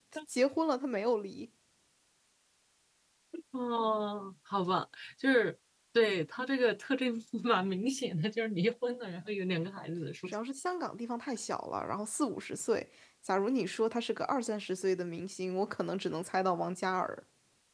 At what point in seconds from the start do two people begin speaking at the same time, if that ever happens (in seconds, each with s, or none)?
none